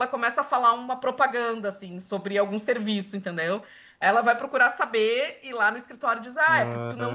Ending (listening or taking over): listening